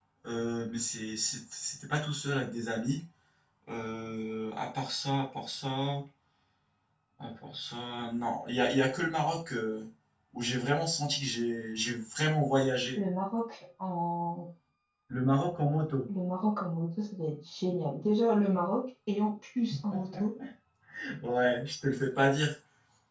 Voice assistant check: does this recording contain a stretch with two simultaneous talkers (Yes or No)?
No